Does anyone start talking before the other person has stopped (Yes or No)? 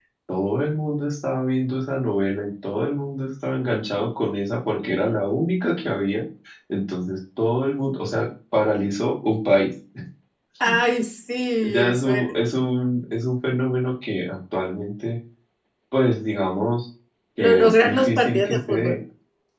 Yes